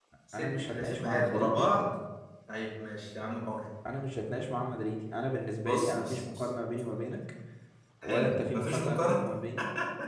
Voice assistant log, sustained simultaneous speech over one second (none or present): present